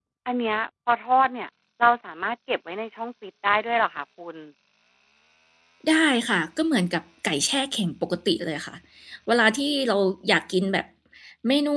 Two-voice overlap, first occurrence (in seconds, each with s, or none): none